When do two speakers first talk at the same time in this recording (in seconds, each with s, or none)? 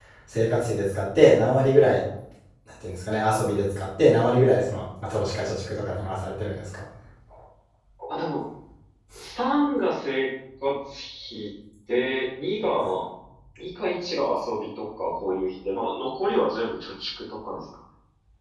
none